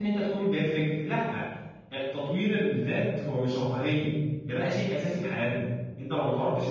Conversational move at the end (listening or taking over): listening